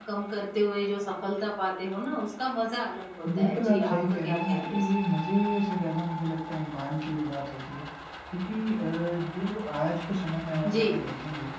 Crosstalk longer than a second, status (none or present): present